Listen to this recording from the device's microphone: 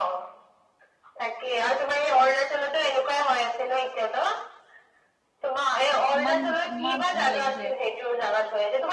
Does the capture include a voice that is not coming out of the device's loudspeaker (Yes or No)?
Yes